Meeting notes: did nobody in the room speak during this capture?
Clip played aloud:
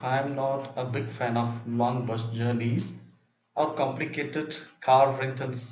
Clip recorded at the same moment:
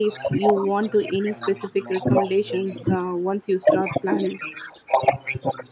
No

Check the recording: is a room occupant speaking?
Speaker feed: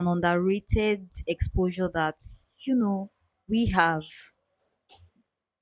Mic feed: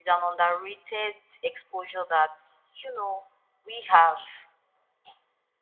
No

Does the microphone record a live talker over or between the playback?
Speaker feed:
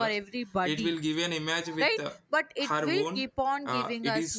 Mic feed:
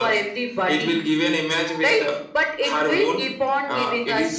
No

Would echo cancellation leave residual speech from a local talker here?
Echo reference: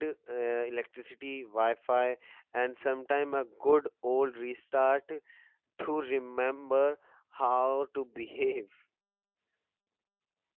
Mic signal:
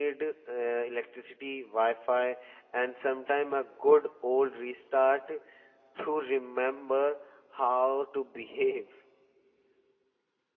No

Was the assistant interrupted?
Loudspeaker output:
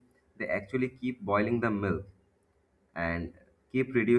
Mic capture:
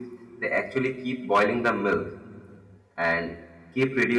No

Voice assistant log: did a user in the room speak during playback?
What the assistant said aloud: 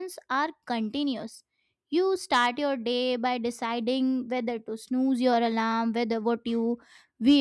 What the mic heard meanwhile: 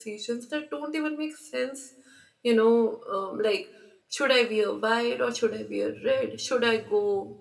Yes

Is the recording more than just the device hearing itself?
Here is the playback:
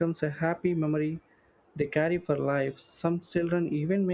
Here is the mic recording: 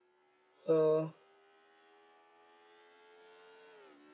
Yes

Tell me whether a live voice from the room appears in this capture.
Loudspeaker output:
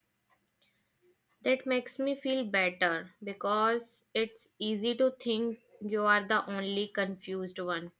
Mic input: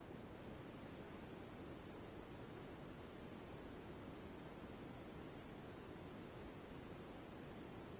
No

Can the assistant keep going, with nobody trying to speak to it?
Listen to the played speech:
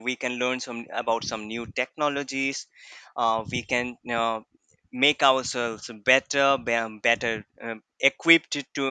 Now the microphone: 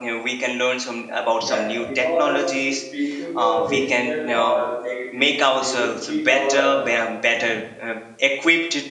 No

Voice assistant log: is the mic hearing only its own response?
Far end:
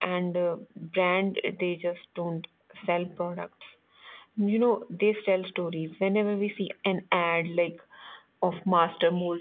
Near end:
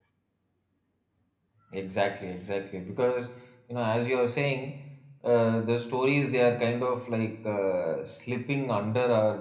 No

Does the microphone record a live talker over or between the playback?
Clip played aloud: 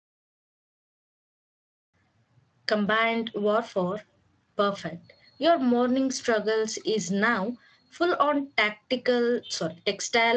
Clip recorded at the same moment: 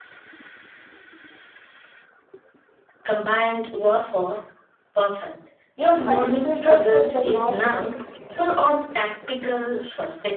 Yes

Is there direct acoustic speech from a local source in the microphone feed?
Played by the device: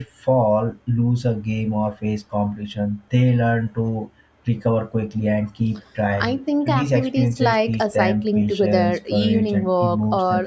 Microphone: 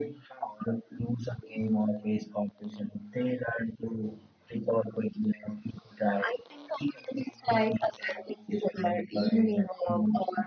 No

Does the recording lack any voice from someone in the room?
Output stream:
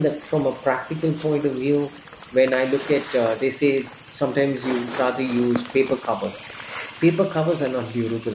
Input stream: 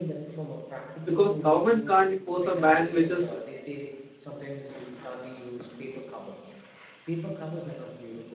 No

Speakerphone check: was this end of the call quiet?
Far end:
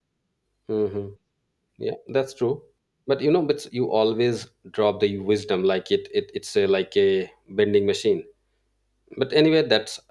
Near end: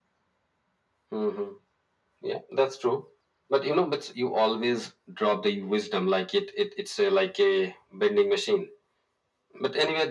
Yes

